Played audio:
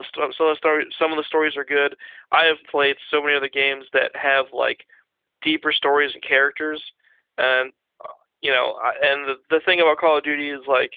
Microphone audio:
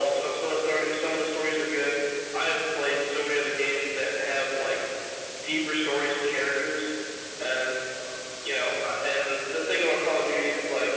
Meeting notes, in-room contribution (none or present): none